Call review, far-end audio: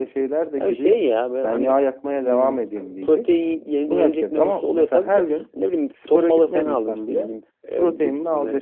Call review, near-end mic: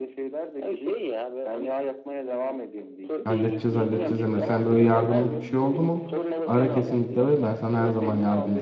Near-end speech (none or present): present